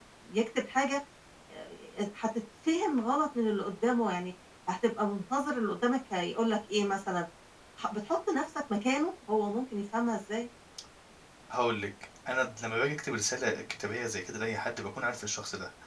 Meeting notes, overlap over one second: none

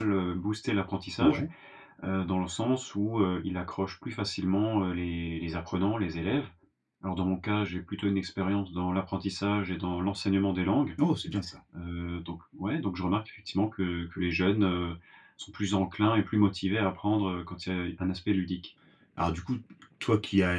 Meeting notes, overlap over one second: none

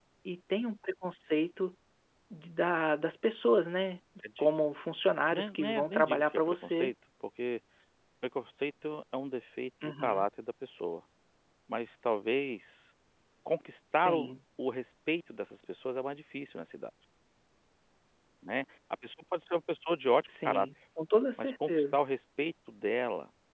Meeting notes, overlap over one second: present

